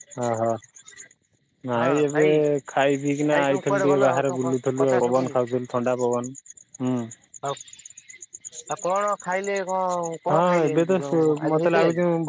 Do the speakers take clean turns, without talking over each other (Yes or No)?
No